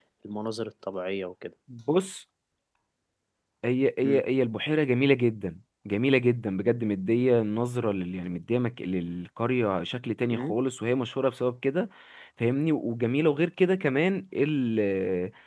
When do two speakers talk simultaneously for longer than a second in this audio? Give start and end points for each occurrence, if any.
none

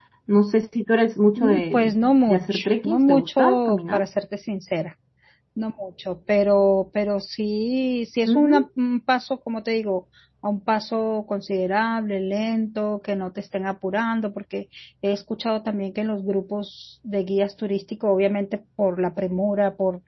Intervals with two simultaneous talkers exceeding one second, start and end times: 1.4-4.0

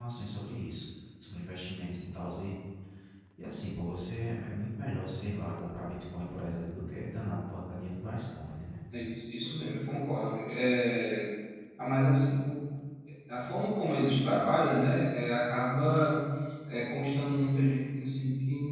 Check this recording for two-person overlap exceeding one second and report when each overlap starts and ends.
none

